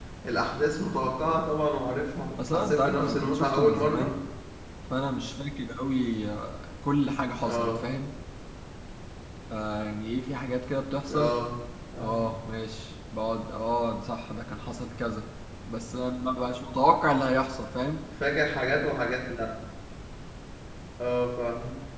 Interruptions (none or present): present